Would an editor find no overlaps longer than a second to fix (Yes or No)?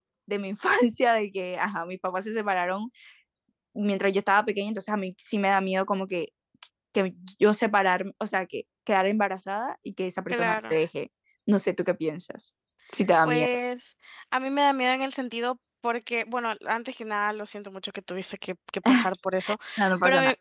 Yes